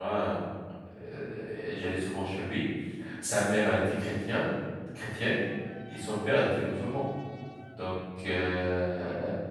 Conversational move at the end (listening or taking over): listening